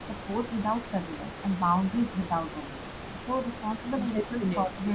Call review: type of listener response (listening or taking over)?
listening